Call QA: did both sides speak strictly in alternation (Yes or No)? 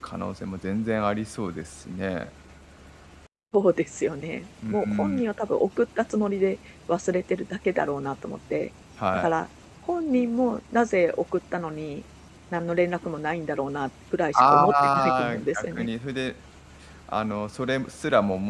No